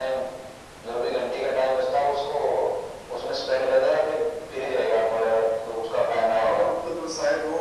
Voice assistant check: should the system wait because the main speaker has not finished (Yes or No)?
No